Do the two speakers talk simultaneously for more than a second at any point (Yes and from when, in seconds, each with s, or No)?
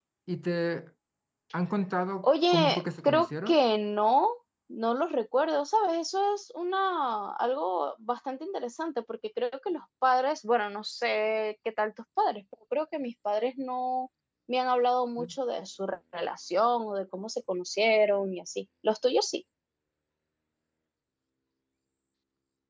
Yes, from 2.2 s